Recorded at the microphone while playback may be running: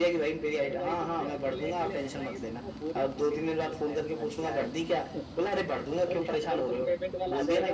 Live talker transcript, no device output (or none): none